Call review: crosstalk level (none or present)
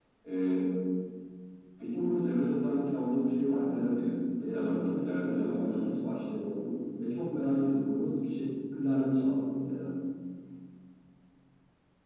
present